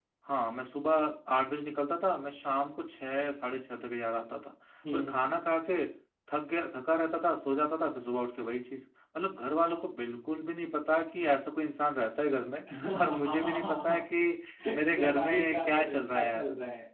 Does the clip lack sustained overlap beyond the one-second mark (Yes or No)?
No